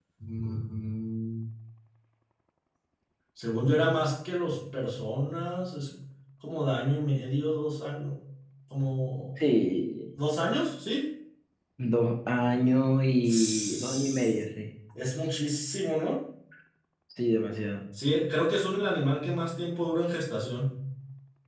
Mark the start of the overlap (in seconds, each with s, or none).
13.2 s